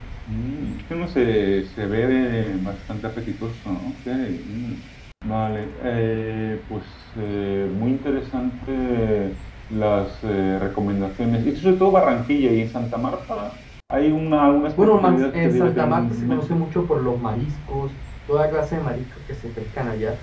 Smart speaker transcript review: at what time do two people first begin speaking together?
14.8 s

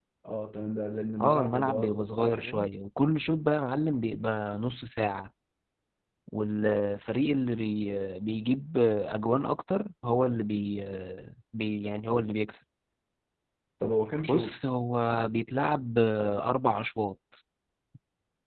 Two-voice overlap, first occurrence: 1.2 s

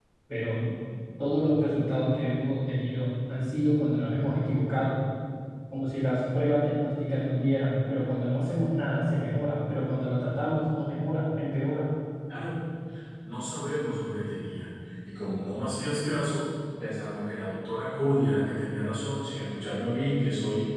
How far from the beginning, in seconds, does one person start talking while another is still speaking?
none

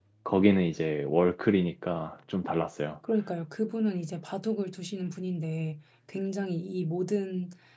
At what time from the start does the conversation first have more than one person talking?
none

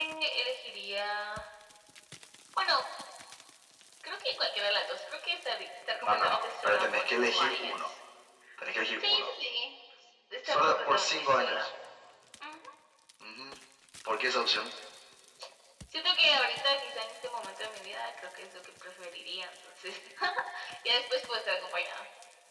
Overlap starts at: 6.0 s

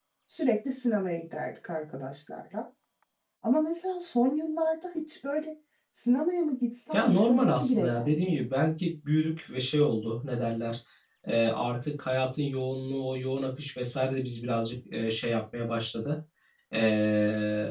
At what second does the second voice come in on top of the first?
6.9 s

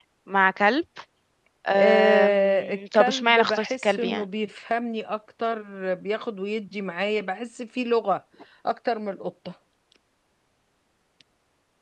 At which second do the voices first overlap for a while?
1.8 s

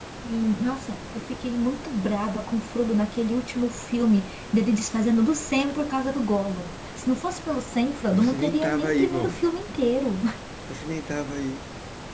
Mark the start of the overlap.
8.1 s

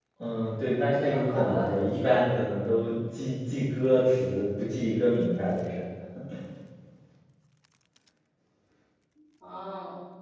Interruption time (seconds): 0.8 s

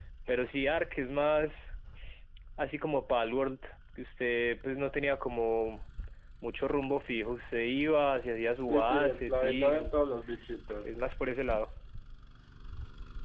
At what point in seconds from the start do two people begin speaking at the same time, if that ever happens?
8.6 s

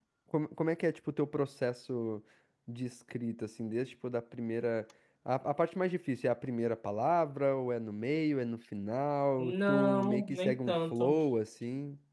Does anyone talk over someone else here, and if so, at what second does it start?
9.4 s

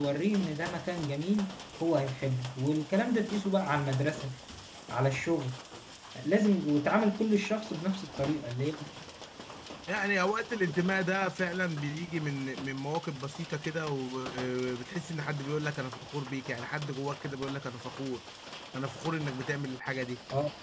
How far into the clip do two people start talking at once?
none

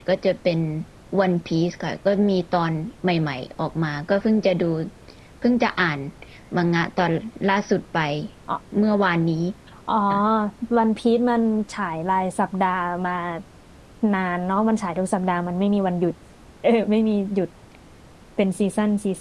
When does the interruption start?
none

